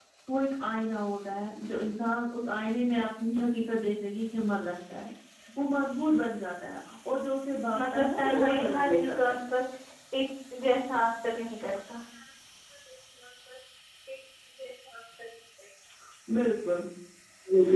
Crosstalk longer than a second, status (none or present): present